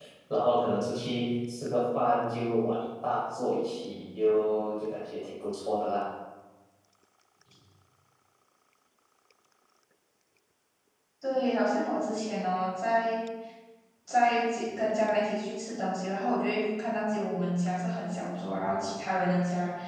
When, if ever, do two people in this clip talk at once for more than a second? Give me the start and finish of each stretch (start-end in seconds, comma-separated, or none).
none